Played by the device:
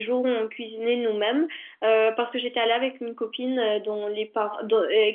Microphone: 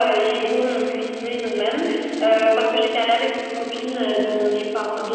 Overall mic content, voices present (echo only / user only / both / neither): echo only